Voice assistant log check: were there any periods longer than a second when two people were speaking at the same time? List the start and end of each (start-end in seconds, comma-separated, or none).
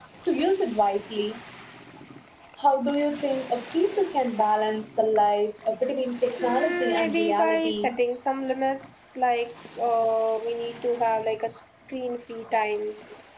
6.4-7.9